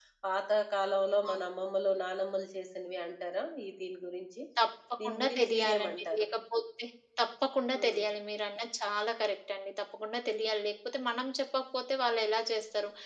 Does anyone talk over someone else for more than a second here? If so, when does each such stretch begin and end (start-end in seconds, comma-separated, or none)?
5.0-6.2